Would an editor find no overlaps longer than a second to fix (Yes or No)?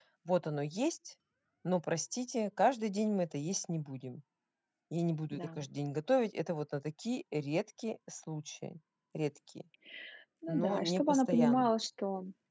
No